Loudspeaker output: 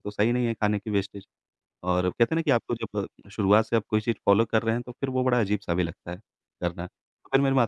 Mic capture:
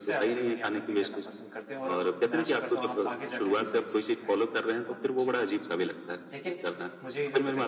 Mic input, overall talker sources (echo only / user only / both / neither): both